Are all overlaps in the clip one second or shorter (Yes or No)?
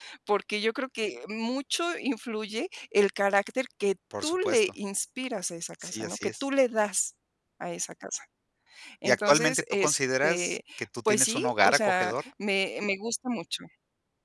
No